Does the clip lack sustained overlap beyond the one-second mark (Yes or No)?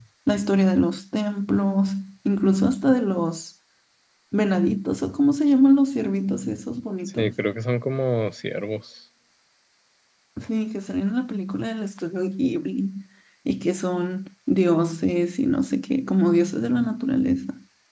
Yes